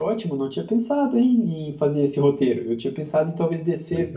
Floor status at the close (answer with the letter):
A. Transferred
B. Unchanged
B